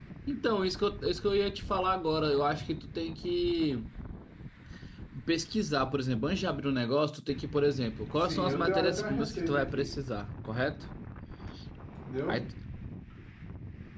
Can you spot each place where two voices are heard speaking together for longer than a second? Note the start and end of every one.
8.2-9.8

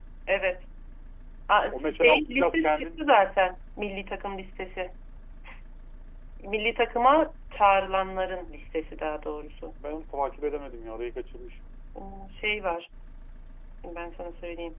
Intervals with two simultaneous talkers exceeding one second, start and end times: 1.7-3.2

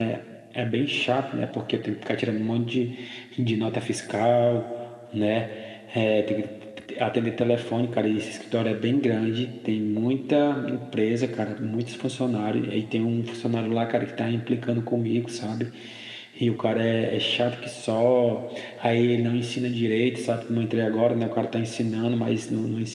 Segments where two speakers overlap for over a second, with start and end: none

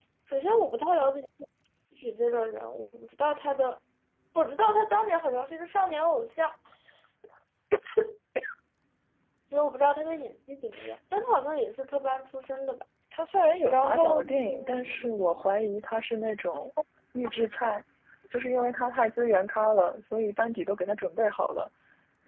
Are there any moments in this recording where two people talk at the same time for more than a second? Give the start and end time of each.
13.7-15.4

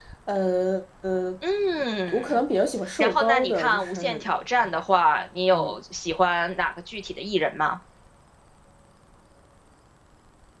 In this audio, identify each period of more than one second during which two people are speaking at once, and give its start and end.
3.0-4.2

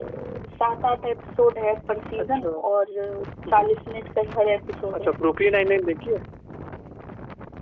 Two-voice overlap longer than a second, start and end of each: none

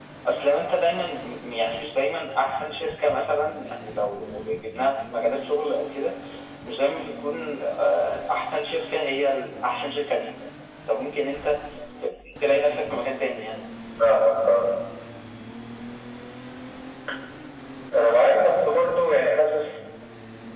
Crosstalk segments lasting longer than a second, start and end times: none

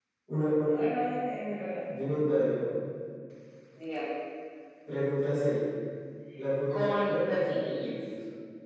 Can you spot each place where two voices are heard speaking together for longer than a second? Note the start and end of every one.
6.7-7.9

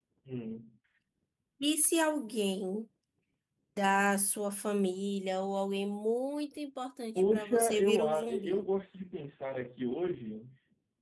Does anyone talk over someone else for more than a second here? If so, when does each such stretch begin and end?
7.2-8.6

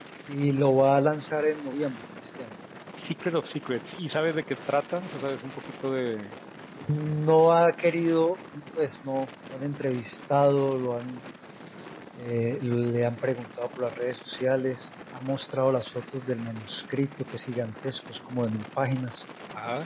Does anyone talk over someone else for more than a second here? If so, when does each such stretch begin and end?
none

